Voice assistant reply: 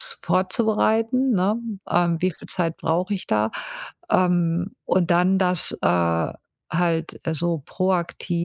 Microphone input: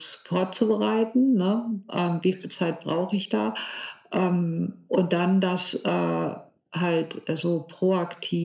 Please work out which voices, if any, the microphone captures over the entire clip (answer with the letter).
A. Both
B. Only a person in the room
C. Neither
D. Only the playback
D